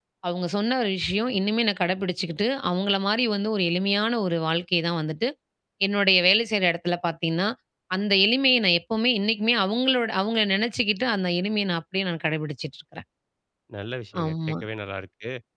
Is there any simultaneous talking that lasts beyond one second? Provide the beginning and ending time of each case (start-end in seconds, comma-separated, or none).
none